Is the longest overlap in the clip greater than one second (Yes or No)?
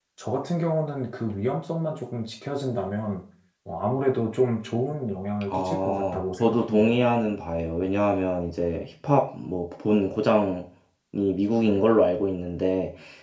Yes